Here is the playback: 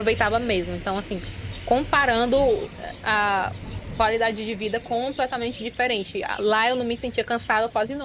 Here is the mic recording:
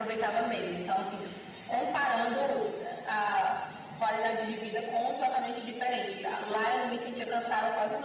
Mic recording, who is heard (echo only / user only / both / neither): echo only